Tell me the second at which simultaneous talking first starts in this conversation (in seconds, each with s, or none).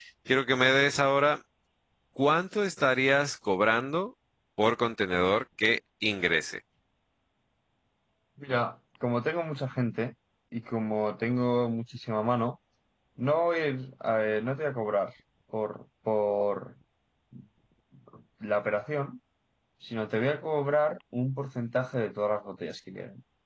none